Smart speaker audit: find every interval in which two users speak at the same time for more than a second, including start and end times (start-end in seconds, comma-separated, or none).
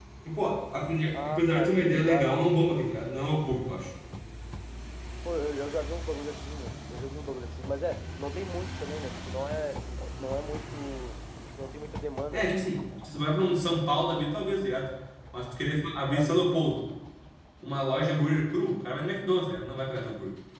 1.1-2.4